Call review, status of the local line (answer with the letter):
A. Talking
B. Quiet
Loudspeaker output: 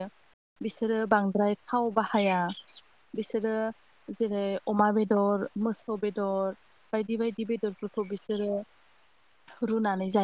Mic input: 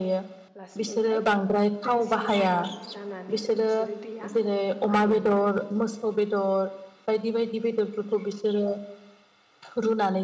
A